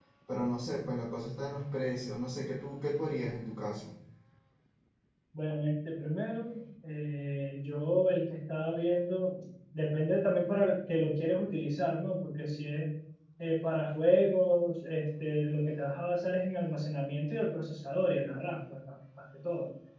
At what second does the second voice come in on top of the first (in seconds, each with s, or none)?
none